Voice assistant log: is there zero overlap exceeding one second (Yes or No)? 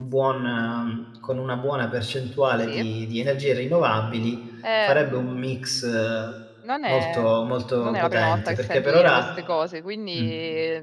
No